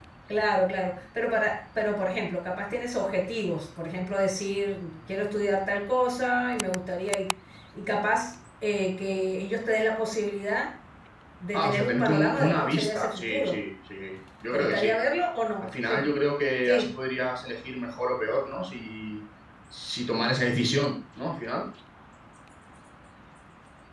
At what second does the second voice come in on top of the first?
12 s

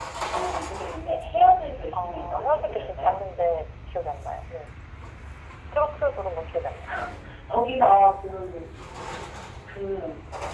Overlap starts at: 2 s

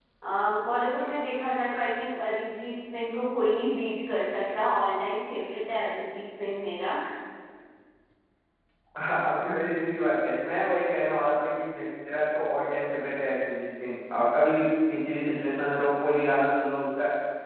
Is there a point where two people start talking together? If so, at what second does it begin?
none

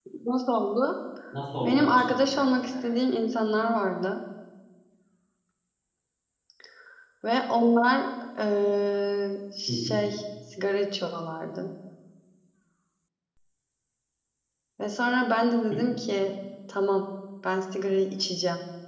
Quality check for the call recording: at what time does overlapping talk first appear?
2 s

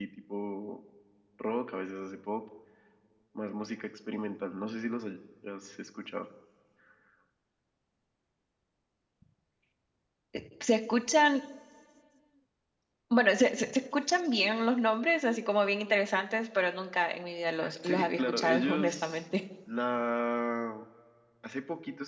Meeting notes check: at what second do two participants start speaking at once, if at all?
18 s

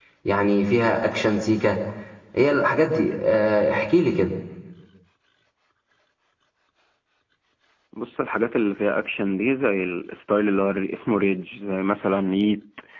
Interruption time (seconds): none

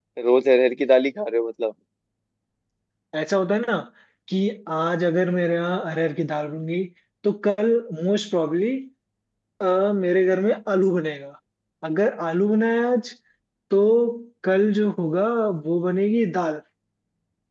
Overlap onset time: none

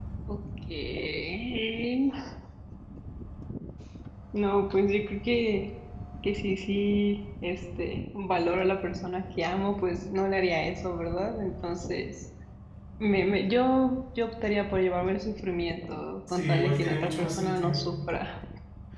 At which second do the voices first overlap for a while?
16 s

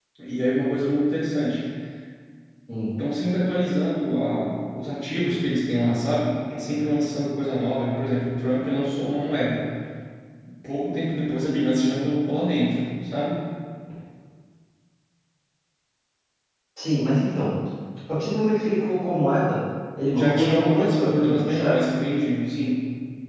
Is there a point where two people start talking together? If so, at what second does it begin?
20 s

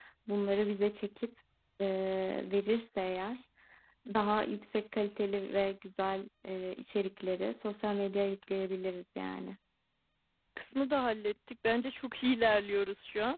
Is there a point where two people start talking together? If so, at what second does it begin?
none

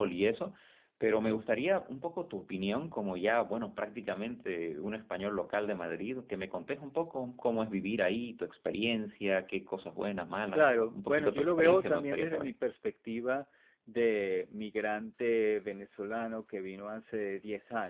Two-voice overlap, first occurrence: 11 s

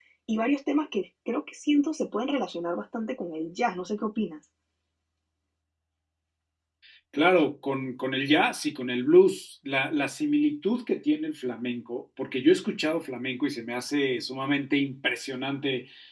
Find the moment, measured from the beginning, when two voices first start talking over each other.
none

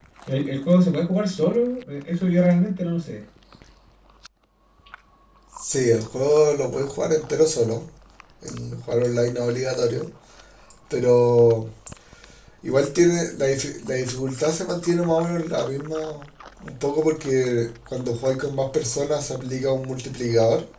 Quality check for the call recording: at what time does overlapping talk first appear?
none

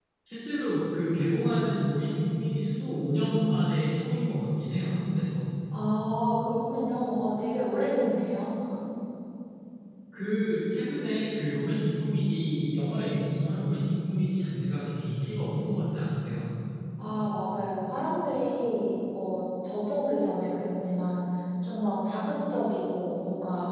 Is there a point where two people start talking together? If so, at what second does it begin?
none

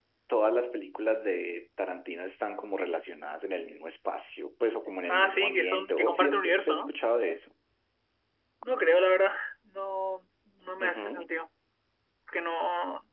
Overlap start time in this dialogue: 5 s

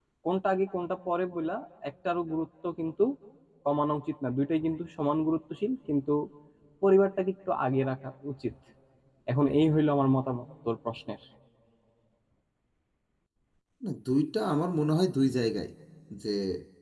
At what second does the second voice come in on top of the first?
none

